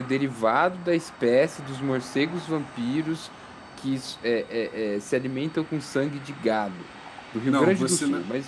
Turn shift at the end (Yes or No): Yes